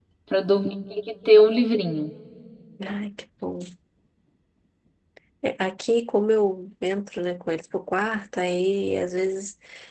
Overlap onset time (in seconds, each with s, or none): none